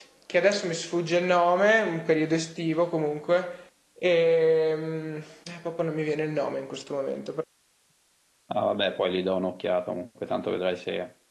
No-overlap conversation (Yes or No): Yes